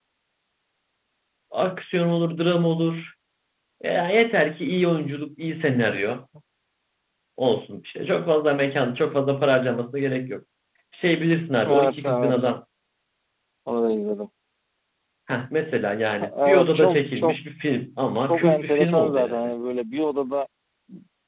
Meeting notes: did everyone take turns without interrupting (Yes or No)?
No